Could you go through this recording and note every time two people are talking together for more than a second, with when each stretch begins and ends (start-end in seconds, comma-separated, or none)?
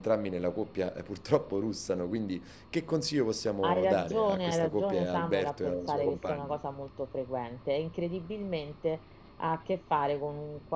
3.6-6.6